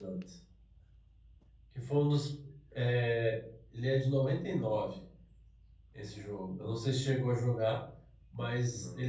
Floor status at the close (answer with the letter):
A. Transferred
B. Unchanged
B